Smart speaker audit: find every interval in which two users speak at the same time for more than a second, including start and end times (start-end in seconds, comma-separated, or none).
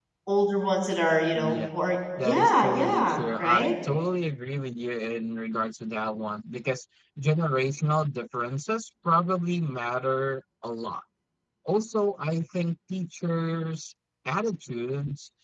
2.2-3.7